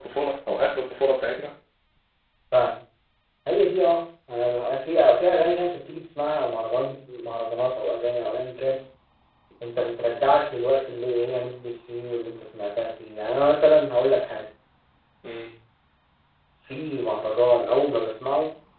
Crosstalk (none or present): none